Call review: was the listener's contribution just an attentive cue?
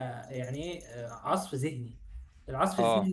Yes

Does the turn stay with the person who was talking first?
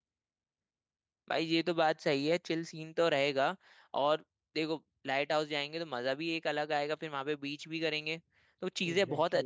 Yes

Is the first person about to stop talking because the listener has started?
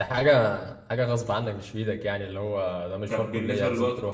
Yes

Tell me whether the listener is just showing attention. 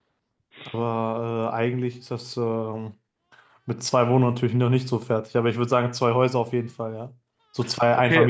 No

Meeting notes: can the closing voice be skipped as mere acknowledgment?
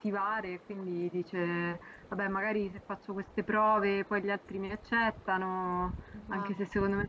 Yes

